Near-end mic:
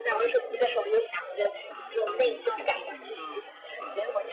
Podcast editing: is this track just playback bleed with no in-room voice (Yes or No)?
No